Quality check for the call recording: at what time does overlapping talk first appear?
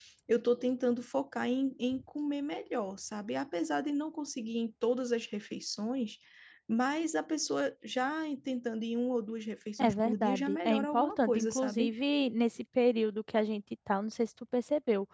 10 s

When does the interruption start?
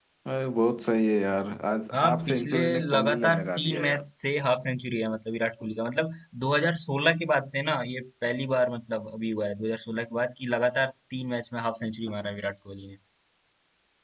2 s

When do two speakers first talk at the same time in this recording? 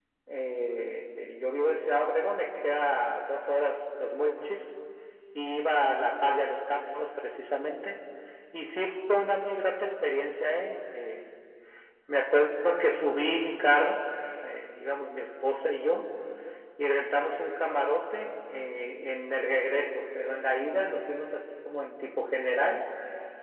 none

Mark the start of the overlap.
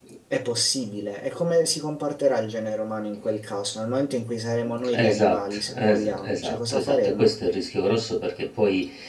5 s

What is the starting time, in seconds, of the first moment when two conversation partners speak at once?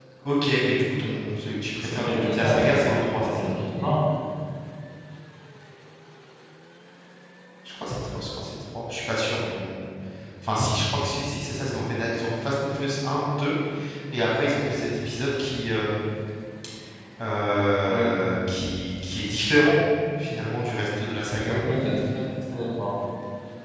2 s

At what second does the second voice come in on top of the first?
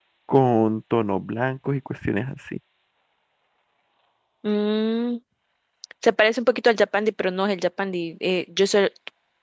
none

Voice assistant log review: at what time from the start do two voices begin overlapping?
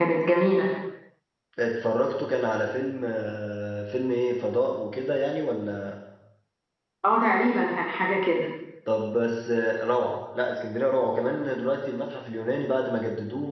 none

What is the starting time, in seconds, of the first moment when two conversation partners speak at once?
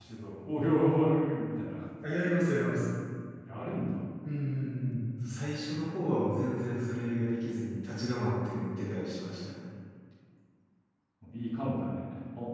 none

